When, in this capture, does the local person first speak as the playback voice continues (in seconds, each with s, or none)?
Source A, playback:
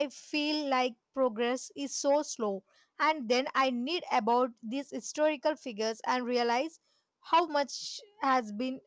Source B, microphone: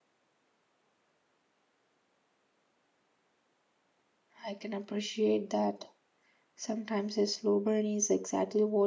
4.4 s